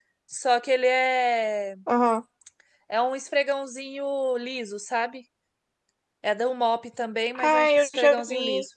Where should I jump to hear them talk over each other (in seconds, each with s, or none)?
7.3 s